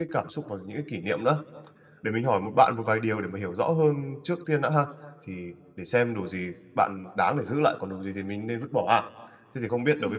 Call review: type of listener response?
listening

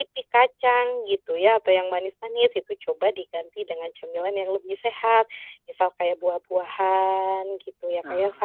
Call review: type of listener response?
listening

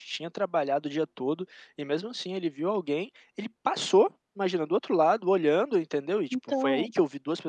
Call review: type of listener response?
listening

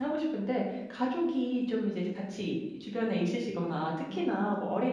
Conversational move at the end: listening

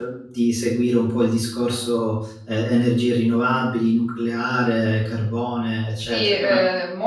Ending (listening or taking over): taking over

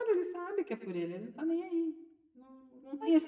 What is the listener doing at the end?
listening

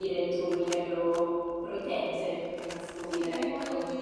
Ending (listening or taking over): taking over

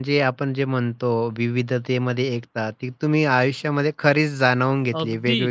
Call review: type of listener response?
taking over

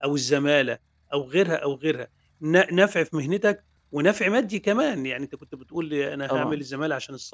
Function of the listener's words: listening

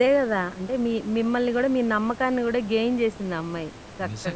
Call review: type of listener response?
taking over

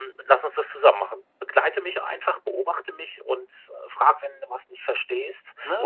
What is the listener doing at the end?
listening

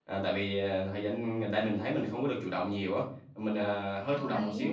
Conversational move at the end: listening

